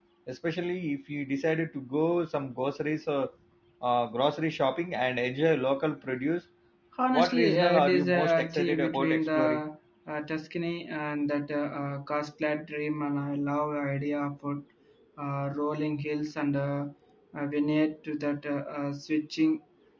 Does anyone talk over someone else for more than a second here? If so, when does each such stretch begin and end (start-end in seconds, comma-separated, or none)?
7.1-9.6